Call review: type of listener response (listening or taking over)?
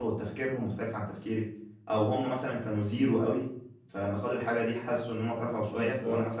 listening